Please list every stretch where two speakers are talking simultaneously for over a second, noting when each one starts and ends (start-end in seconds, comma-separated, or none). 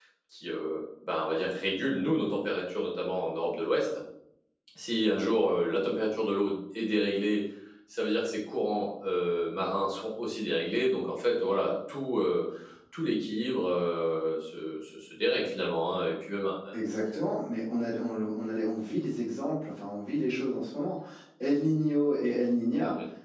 none